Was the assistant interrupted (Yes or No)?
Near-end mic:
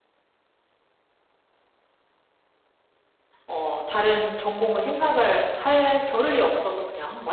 Yes